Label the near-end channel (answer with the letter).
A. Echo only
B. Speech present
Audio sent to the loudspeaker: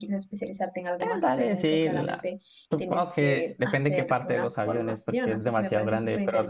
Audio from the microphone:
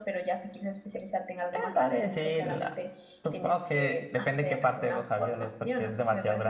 A